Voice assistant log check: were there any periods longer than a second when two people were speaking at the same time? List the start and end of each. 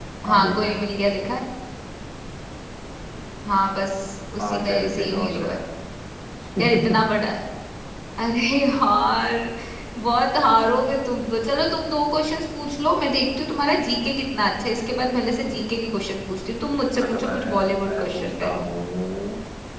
4.4-5.6, 17.0-18.7

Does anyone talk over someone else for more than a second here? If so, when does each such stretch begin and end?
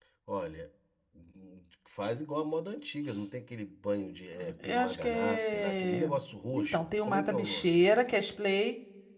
4.6-6.1, 6.5-7.9

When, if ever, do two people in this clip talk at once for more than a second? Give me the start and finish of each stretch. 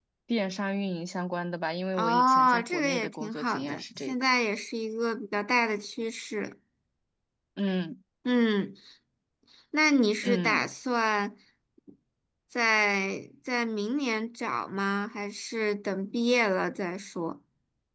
2.0-4.1

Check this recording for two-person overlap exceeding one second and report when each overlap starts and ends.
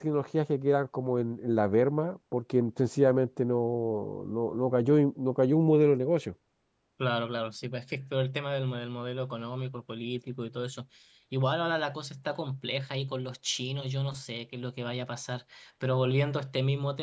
none

